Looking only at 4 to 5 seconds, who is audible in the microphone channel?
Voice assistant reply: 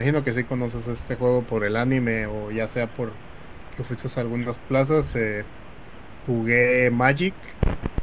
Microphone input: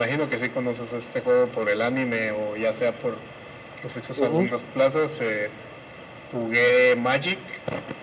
both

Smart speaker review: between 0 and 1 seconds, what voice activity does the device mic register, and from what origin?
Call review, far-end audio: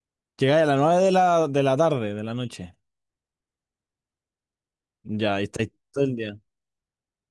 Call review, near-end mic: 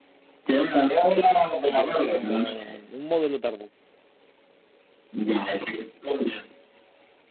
echo only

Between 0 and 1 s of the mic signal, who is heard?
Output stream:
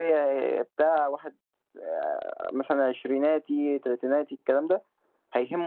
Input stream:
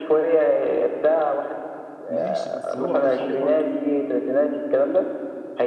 echo only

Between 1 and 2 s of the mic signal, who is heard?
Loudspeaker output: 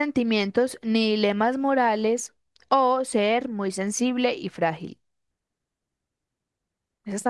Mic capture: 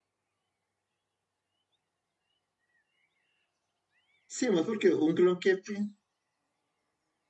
neither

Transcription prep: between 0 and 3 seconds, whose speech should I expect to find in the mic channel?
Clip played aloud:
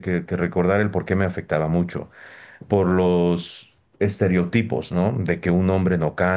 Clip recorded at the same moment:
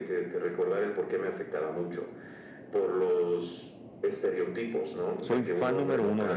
echo only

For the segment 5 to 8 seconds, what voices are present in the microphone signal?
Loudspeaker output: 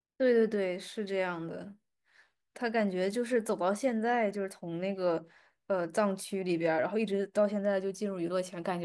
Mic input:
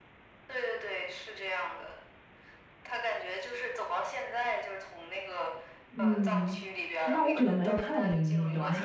both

